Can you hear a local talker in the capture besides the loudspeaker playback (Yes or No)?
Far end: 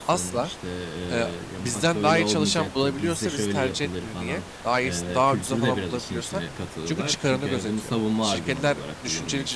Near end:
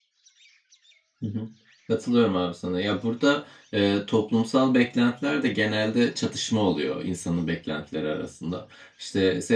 Yes